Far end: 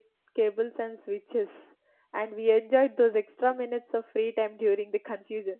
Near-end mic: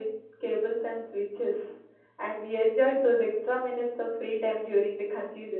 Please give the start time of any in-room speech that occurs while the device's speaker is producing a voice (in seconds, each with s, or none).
none